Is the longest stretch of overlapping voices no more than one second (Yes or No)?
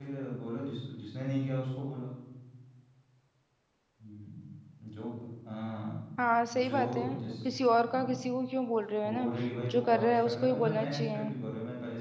No